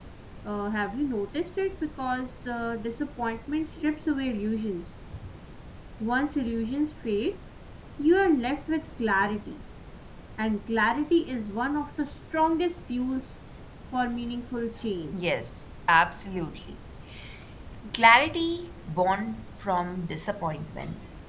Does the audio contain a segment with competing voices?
No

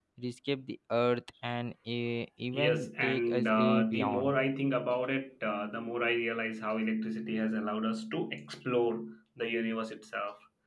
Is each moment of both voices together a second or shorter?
No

